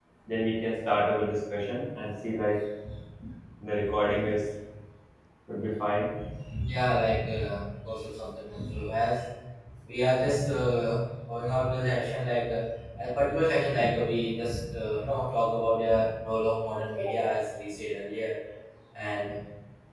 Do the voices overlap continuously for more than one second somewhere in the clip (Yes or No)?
No